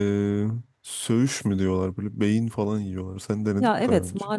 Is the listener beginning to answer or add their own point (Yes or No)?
Yes